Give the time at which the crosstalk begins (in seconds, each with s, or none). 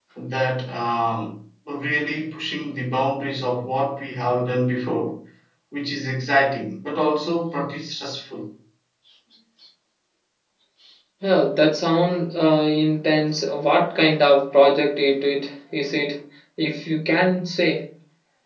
none